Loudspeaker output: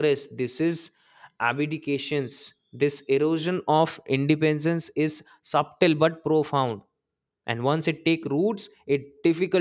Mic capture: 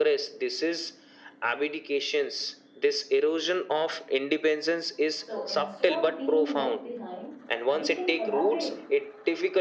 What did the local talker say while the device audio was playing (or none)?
So instead of being left behind, we can collaborate